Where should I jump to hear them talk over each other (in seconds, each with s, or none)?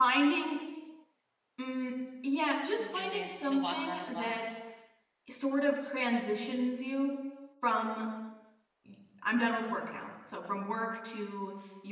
2.8 s